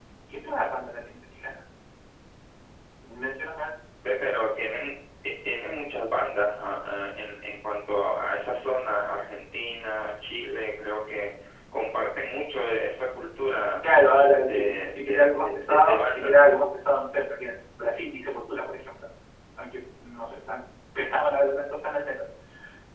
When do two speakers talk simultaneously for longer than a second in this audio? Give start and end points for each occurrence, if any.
14.5-16.4

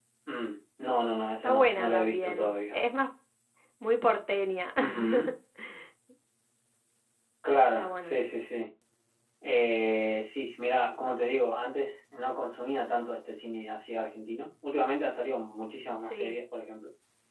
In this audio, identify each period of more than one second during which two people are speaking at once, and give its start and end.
1.4-2.8

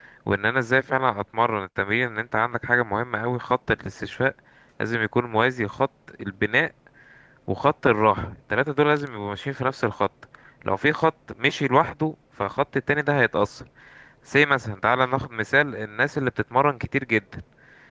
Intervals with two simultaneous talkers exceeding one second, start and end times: none

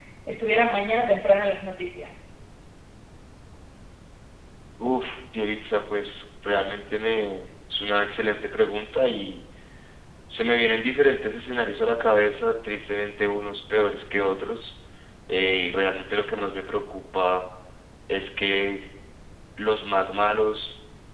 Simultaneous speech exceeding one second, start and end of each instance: none

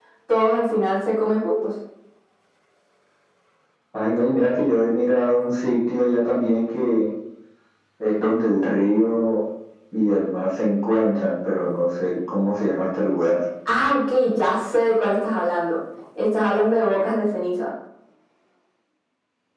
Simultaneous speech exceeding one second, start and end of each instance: none

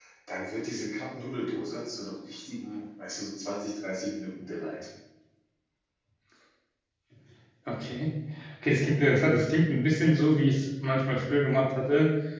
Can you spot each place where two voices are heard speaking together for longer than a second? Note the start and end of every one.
none

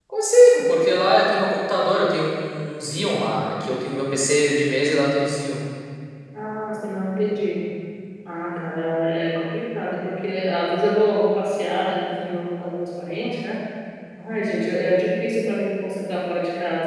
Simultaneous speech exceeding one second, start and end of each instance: none

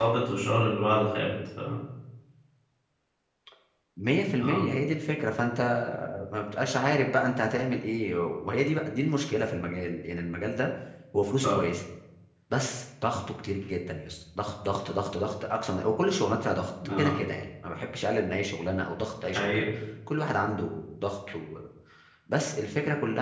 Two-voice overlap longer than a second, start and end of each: none

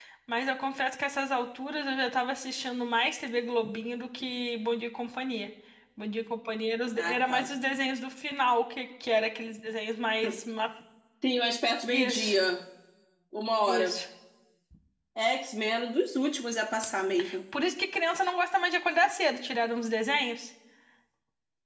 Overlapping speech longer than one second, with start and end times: none

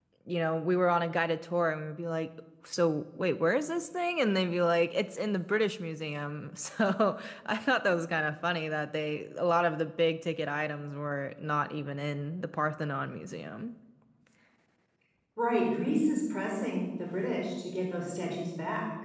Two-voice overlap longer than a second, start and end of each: none

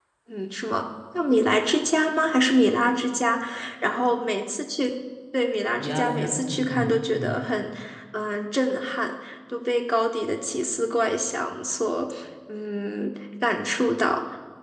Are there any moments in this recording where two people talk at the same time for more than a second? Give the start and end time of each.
5.8-7.3

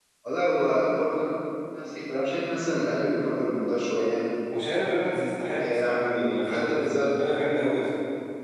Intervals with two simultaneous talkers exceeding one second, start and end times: 5.6-7.1

